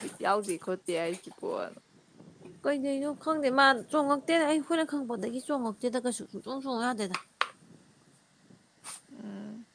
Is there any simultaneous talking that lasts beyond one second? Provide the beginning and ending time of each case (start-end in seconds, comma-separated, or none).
none